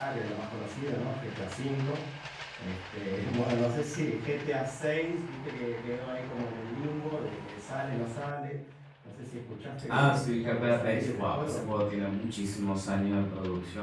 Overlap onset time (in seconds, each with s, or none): 9.9 s